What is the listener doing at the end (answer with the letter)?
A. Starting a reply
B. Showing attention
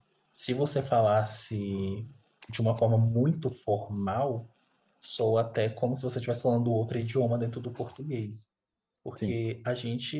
B